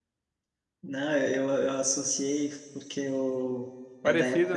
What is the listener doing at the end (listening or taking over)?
listening